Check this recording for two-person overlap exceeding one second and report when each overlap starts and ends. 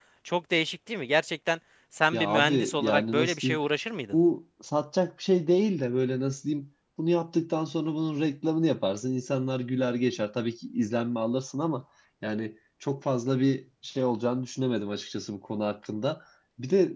2.1-3.6

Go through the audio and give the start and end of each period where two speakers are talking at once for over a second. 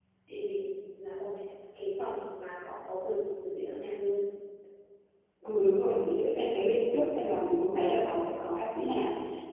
none

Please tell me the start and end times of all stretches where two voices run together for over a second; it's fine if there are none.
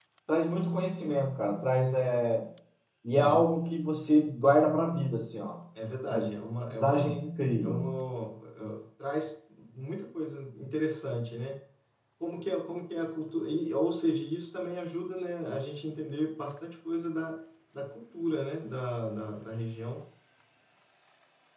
none

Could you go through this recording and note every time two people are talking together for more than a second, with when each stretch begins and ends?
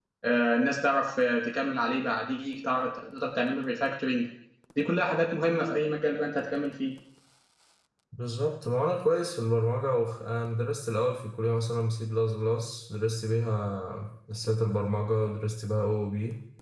none

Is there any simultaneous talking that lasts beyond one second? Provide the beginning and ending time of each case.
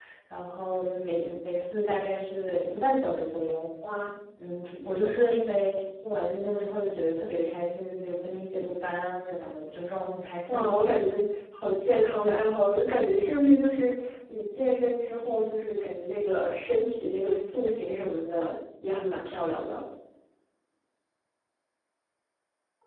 none

